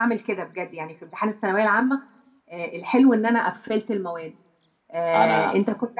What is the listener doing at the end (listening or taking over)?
listening